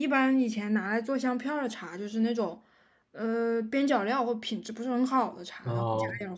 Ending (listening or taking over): listening